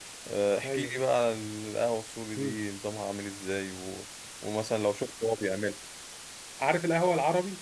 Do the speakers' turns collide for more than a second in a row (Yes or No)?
No